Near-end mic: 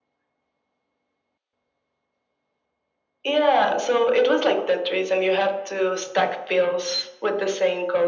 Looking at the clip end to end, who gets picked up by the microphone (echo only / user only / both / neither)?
echo only